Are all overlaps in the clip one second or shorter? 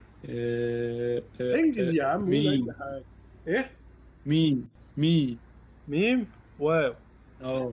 No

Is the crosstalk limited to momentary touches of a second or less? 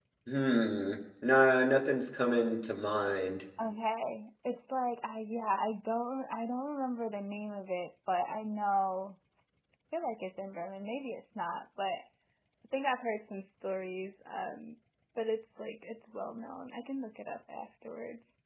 Yes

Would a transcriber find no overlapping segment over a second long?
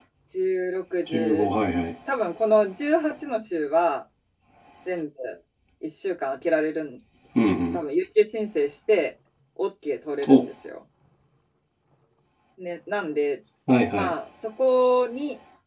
Yes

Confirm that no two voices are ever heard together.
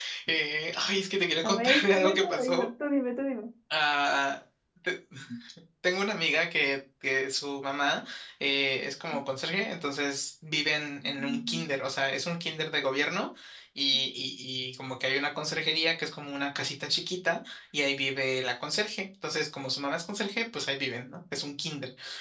No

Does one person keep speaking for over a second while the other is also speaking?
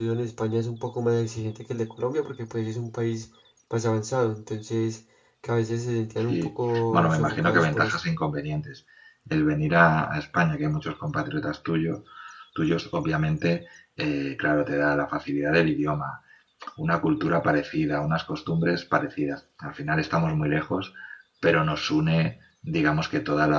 Yes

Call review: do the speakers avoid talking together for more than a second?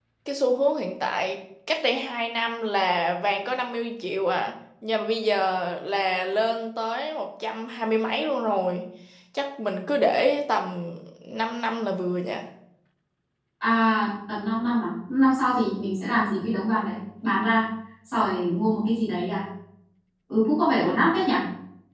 Yes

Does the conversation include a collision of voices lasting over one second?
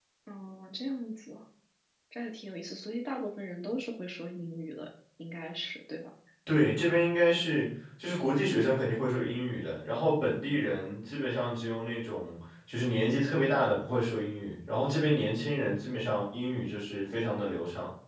No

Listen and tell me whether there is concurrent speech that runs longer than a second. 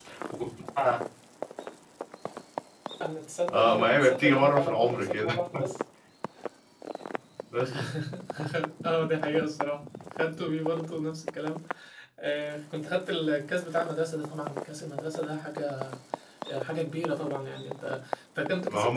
Yes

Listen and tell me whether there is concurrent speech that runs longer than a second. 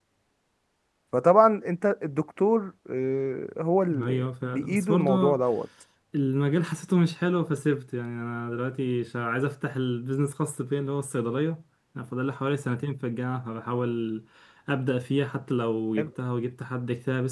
Yes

